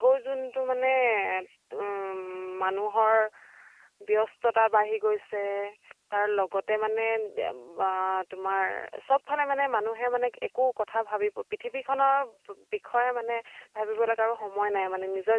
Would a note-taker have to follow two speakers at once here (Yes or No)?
No